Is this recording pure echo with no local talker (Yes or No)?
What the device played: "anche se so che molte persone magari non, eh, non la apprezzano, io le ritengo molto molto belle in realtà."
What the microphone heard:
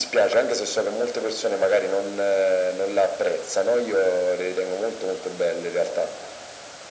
Yes